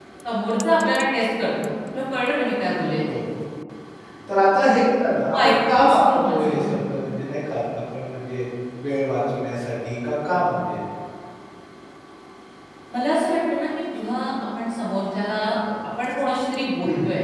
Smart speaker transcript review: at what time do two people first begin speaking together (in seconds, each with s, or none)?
5.3 s